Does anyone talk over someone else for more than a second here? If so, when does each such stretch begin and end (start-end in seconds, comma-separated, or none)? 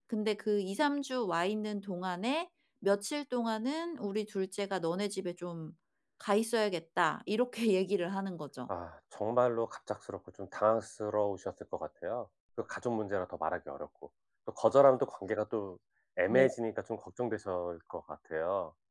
none